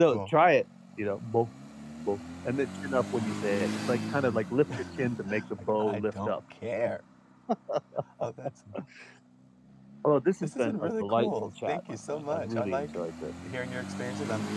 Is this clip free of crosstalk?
No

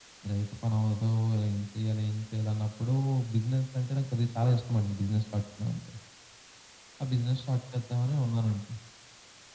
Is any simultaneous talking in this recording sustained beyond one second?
No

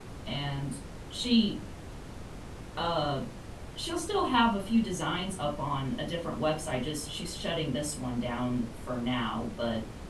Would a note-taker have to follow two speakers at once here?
No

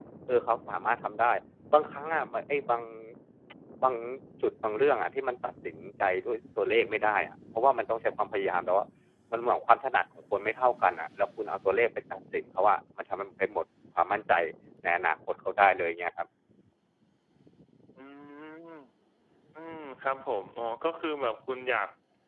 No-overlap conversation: Yes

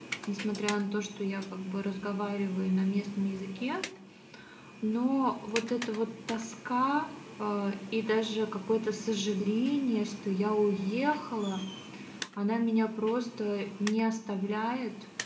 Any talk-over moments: No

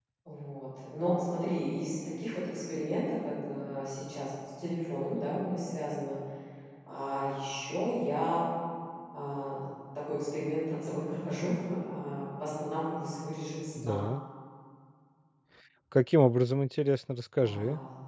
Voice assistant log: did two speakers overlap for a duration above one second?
No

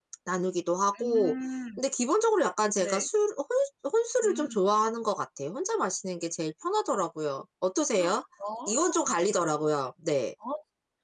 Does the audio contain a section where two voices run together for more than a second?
No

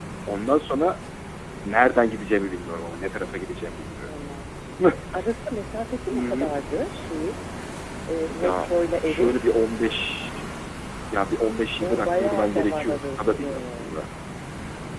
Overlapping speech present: Yes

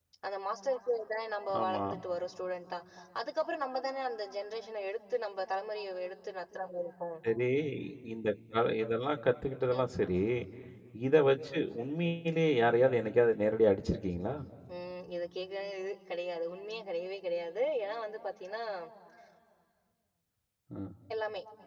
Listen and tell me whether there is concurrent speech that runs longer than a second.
No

